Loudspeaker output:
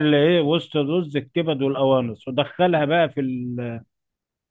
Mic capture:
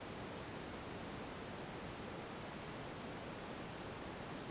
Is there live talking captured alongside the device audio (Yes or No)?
No